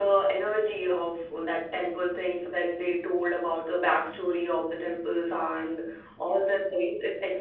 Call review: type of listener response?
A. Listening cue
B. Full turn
A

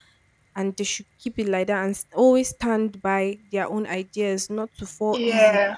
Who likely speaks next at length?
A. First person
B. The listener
A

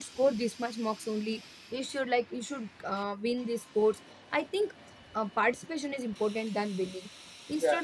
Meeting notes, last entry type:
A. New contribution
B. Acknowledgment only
B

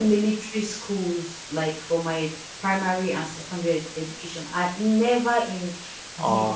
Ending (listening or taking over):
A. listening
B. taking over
A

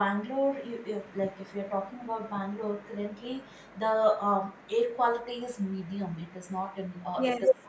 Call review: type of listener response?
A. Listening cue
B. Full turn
A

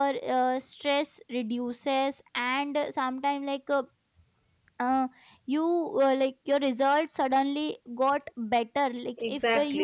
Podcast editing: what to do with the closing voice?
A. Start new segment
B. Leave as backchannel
B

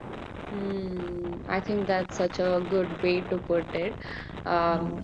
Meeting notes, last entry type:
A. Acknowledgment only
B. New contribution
A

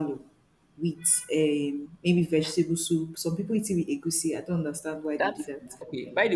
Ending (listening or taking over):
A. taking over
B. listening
A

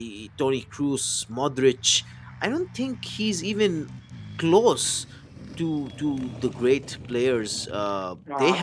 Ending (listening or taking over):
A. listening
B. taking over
B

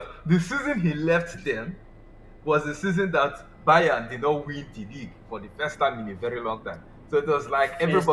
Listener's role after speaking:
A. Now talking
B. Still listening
B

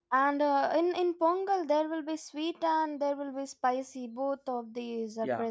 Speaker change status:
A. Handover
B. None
A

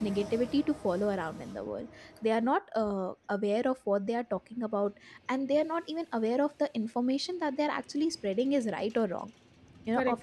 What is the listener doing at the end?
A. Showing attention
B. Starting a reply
A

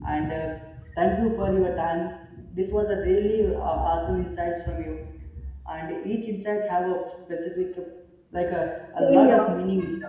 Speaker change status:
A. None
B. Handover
A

